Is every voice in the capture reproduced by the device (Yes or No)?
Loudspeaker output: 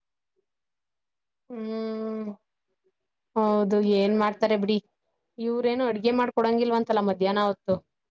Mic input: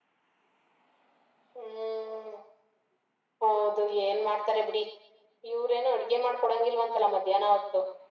Yes